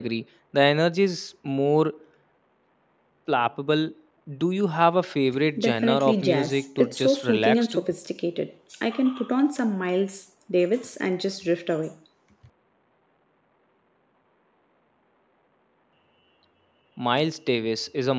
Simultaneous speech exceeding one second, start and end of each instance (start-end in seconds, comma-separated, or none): 5.6-7.9